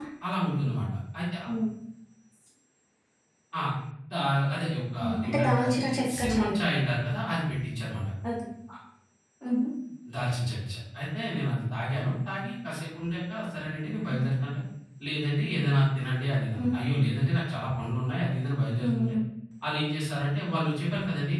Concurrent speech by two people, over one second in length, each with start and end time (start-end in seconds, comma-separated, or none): 5.3-6.6